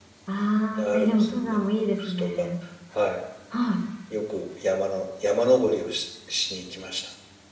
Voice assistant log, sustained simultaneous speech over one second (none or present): present